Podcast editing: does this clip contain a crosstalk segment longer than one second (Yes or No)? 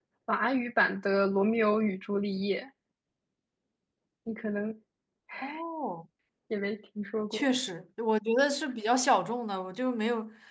No